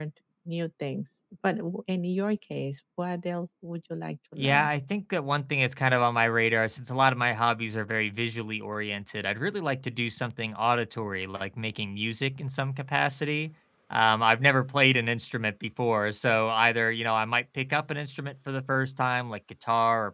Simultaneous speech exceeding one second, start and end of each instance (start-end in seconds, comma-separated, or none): none